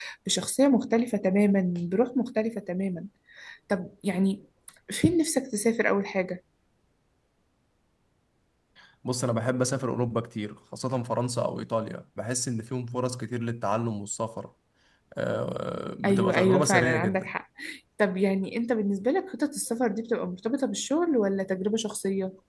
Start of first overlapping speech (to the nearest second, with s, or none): 16 s